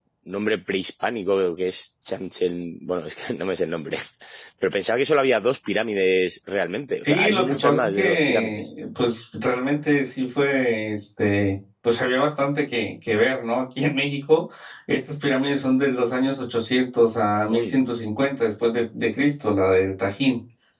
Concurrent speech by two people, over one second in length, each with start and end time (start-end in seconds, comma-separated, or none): 7.0-8.6